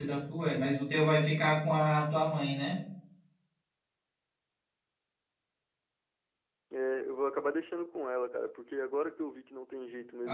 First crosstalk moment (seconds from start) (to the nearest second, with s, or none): none